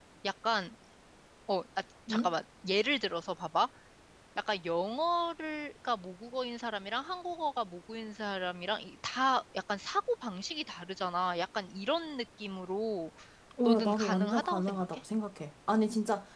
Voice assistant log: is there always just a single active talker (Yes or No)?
No